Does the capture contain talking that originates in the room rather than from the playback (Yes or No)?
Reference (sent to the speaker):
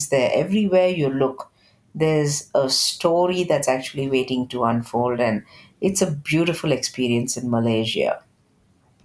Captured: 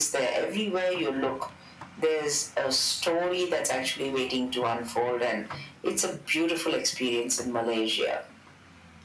No